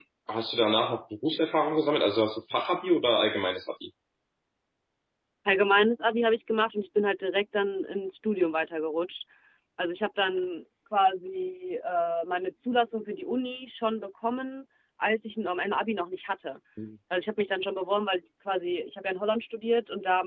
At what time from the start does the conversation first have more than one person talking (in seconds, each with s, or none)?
none